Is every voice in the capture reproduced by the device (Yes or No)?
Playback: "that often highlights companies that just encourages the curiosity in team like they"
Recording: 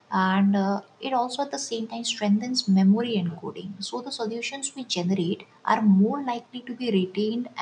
No